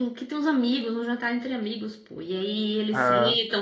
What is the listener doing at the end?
listening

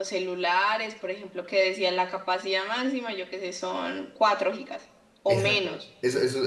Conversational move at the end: taking over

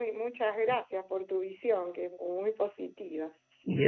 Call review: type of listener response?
listening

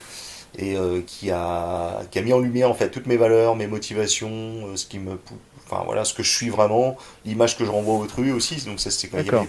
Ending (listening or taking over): listening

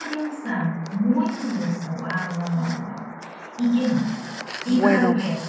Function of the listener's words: listening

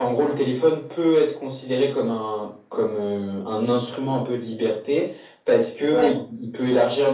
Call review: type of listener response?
listening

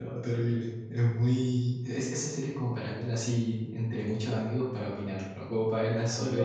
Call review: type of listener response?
taking over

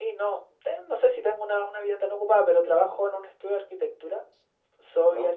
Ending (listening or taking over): listening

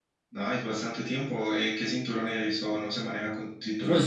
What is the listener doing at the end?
taking over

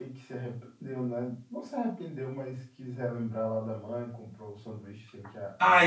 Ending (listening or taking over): taking over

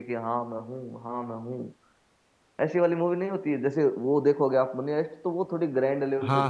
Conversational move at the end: taking over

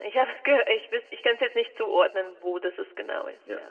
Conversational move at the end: taking over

